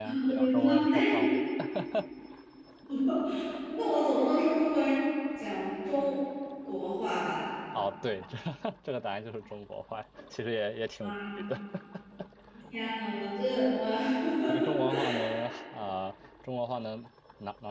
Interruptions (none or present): present